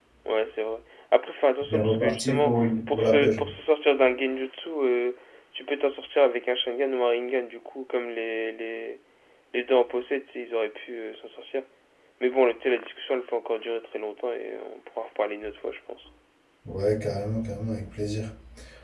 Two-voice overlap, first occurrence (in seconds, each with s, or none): 1.7 s